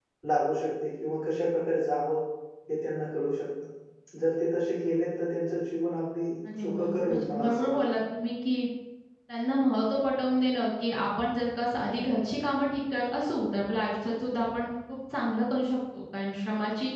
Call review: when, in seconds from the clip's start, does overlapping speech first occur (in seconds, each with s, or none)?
6.4 s